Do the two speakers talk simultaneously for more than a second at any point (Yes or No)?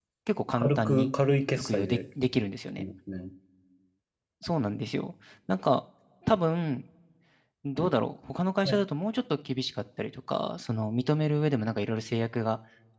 No